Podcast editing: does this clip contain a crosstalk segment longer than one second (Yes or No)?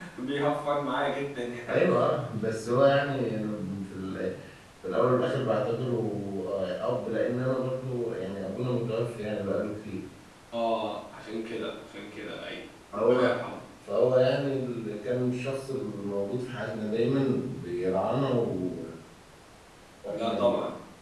No